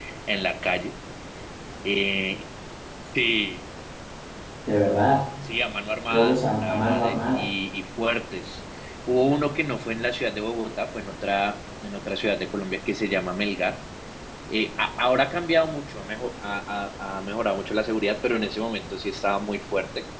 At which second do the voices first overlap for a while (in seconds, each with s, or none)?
6.1 s